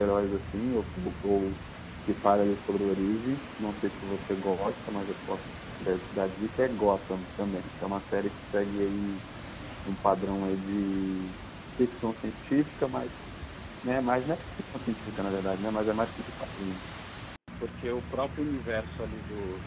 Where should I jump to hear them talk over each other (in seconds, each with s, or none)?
14.3 s